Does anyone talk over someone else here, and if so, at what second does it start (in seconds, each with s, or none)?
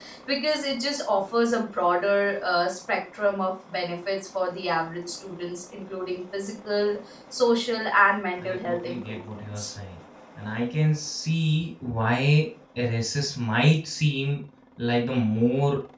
8.4 s